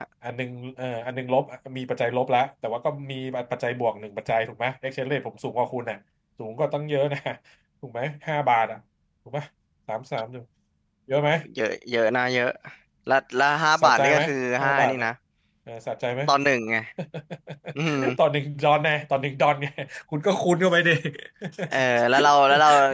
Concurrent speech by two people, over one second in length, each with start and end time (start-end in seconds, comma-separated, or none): none